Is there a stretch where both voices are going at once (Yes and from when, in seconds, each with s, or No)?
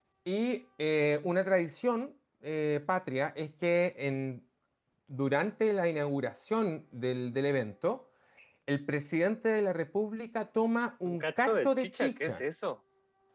Yes, from 11.0 s